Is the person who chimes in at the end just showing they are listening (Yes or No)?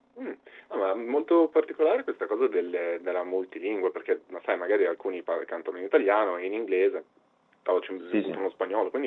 Yes